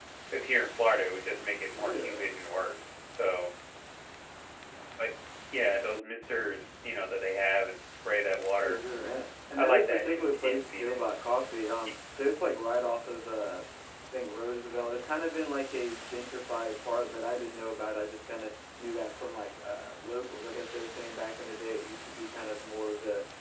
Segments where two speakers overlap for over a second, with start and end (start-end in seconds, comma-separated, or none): 9.6-11.0